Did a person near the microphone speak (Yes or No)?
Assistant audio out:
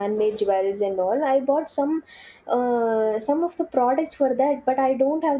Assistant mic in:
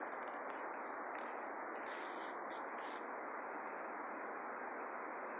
No